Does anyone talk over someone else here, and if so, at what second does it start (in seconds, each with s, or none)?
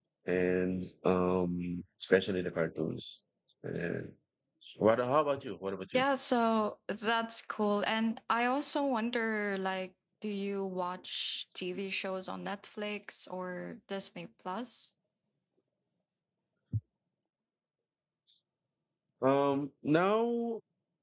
none